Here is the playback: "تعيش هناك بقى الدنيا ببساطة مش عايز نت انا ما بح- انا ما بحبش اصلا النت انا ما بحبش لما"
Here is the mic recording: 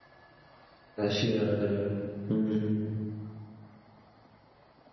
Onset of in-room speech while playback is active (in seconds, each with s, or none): 1.0 s